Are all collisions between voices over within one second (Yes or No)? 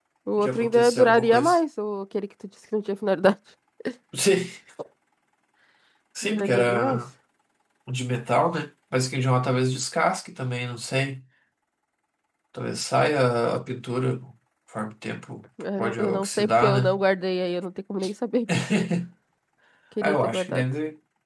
No